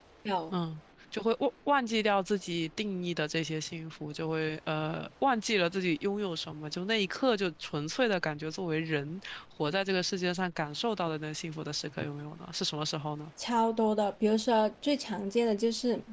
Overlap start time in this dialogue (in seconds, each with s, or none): none